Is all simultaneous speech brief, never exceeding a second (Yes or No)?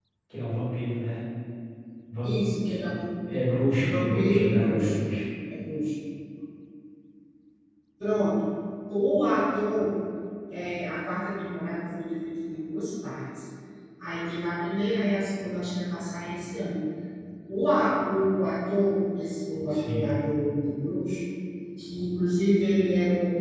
No